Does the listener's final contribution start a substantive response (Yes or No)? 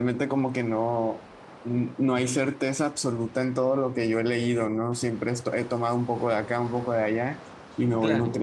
No